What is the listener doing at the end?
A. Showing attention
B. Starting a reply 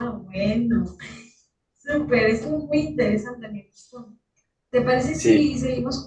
A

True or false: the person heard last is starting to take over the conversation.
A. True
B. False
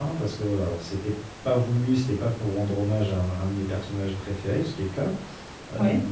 B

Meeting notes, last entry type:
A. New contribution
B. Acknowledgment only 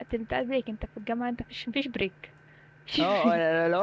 A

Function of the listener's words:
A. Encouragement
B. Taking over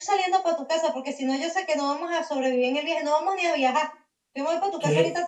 A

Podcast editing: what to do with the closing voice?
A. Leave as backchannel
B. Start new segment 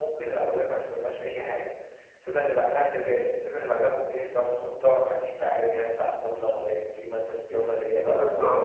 B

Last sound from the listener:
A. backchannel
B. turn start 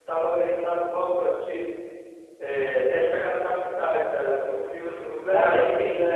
B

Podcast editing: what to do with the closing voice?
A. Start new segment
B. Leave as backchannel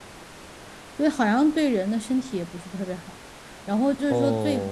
B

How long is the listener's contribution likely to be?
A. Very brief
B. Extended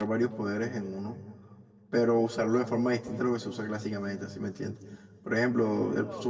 A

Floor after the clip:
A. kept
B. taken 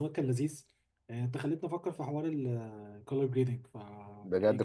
B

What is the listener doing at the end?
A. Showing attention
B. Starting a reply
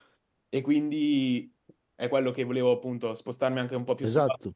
A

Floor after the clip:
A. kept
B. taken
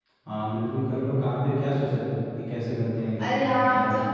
B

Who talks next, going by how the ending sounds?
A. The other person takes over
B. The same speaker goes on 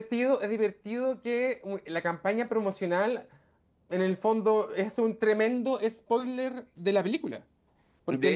B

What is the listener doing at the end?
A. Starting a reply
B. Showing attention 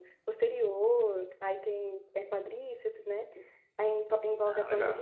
B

